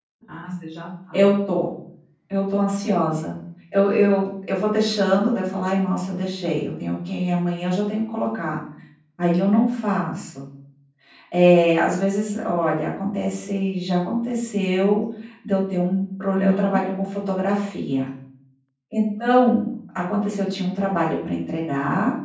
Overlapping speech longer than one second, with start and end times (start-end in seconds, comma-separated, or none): none